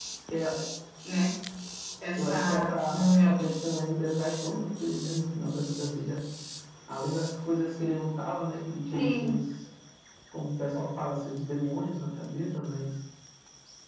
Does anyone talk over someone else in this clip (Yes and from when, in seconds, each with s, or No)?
Yes, from 2.2 s